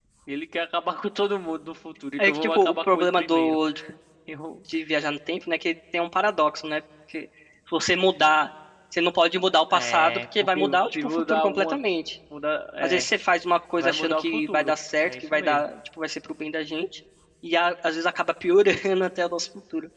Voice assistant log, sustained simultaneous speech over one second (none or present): present